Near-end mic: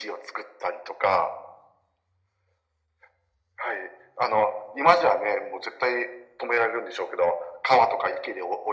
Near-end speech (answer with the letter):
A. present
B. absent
B